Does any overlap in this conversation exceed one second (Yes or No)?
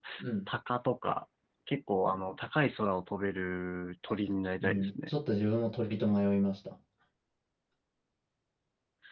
No